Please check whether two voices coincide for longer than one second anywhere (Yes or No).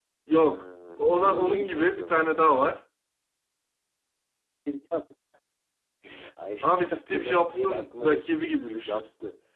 Yes